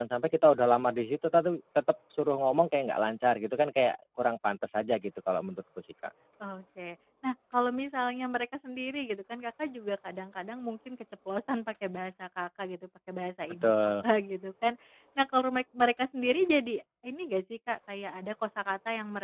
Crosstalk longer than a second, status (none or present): none